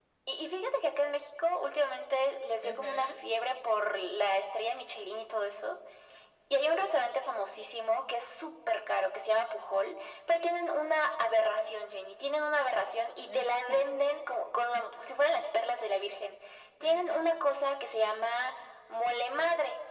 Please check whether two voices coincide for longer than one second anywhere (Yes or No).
No